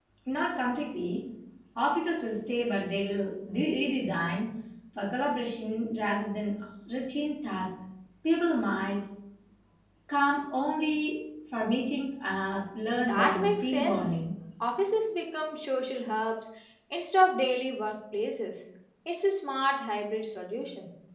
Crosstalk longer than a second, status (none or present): present